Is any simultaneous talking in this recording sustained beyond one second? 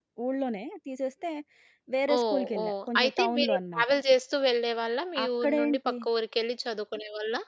Yes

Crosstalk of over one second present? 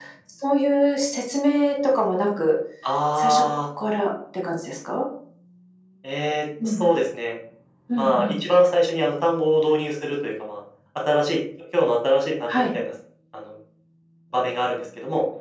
No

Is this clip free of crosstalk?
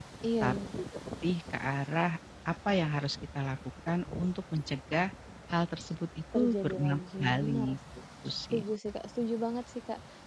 No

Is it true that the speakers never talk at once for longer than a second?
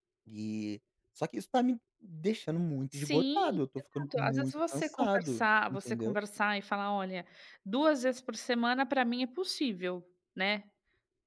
No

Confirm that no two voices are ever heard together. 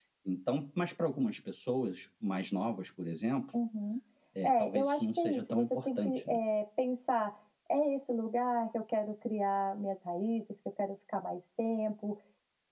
No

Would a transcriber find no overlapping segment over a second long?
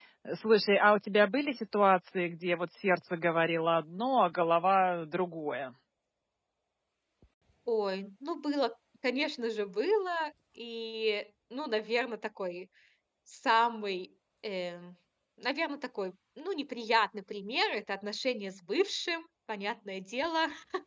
Yes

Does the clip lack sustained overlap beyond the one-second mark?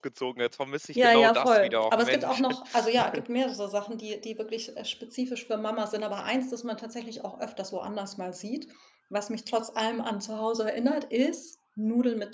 No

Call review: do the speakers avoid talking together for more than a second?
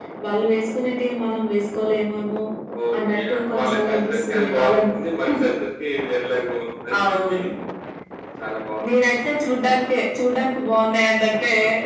No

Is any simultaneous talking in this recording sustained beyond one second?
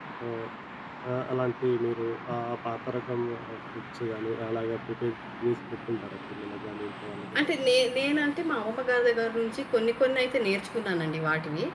No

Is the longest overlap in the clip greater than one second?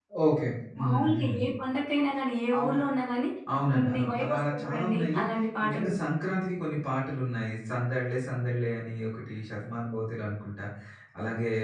Yes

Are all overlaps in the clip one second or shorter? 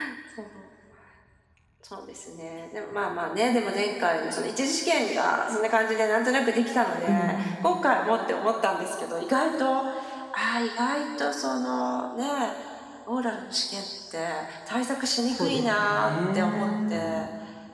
No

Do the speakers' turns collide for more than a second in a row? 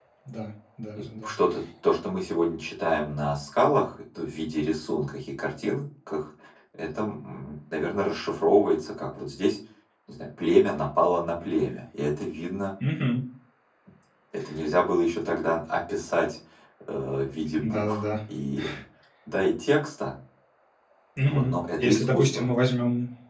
Yes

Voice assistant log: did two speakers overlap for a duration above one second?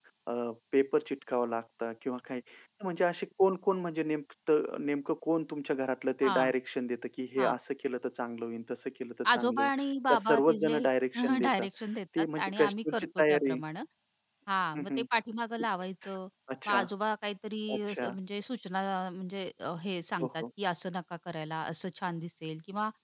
Yes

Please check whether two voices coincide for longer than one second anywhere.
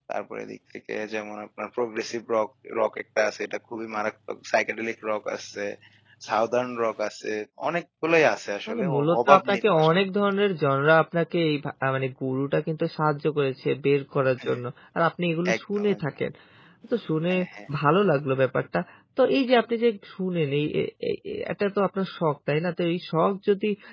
Yes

